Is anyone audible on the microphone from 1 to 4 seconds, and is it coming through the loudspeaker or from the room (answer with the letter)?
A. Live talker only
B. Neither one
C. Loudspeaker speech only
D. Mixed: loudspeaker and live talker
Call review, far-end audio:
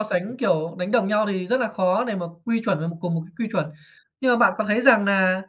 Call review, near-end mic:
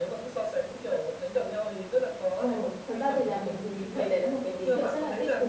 D